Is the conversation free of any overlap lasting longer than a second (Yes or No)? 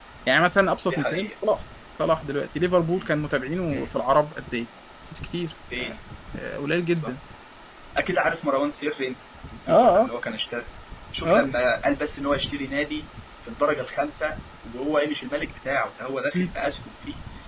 Yes